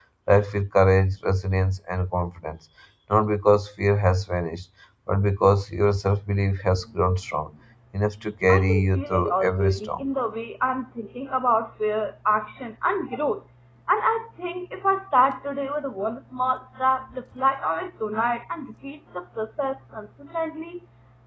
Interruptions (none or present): present